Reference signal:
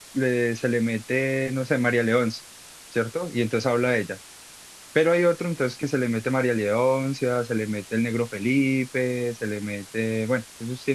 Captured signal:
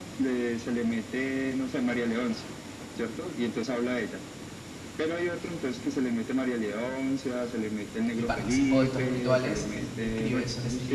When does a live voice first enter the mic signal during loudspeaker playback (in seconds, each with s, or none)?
8.1 s